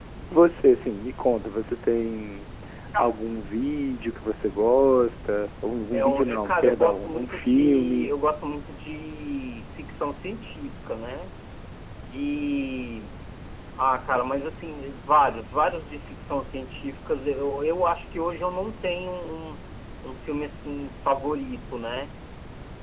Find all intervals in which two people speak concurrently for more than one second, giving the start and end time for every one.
5.9-8.1

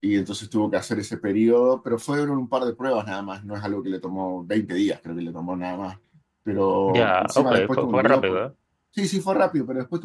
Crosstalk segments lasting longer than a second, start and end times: 6.9-8.4

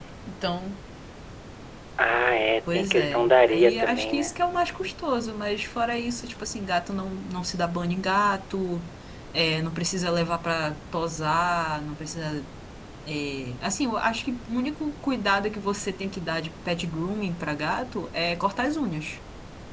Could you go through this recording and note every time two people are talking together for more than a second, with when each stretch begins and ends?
2.7-4.3

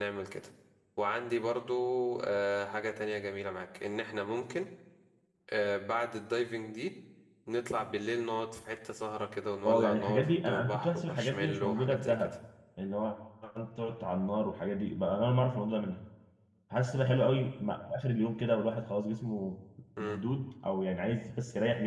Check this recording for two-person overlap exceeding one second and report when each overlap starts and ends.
9.6-12.3

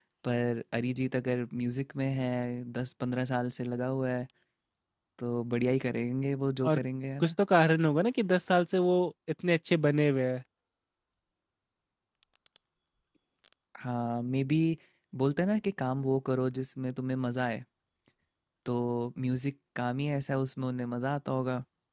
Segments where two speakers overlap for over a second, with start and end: none

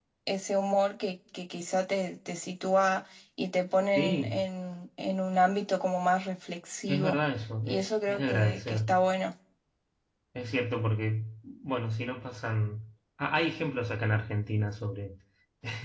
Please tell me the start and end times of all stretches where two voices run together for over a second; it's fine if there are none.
7.7-8.9

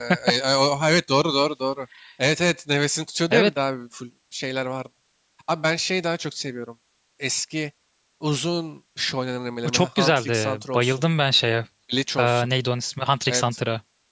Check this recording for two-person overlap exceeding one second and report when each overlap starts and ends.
9.6-11.0

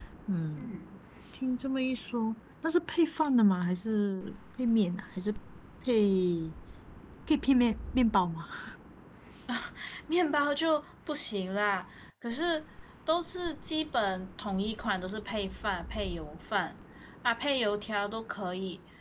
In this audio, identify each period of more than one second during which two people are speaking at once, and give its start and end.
none

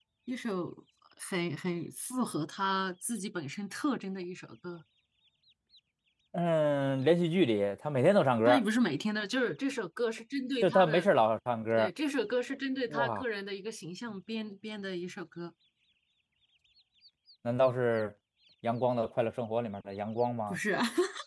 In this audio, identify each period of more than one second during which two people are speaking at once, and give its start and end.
none

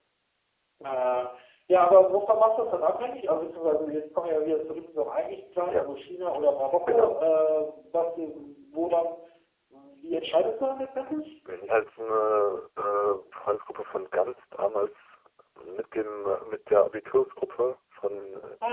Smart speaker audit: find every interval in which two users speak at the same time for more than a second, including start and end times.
none

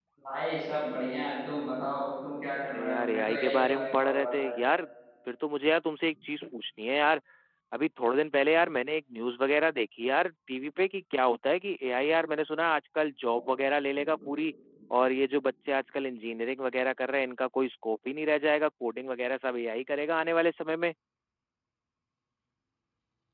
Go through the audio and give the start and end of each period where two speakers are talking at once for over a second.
2.7-4.7

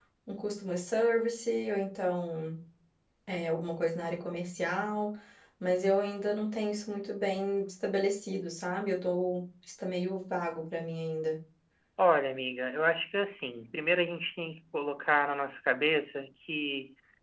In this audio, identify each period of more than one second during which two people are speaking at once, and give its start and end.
none

